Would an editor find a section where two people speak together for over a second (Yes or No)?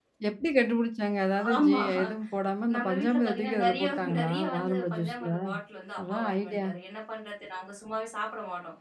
Yes